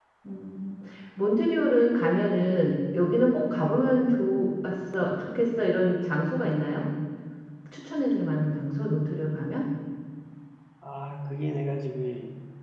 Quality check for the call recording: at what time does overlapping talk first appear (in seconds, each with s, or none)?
none